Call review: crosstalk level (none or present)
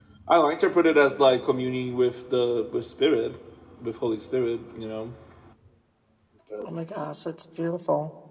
none